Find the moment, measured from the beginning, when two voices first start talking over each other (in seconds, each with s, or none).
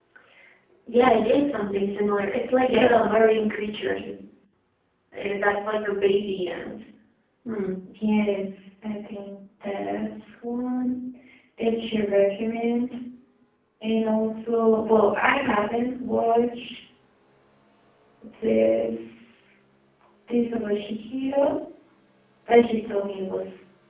2.6 s